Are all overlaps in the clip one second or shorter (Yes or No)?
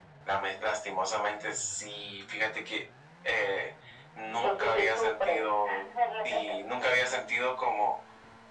No